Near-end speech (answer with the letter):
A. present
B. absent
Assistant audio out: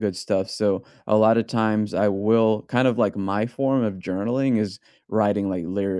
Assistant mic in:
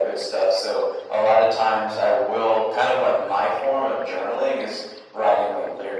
B